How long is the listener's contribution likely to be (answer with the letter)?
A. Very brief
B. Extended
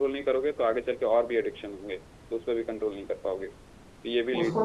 B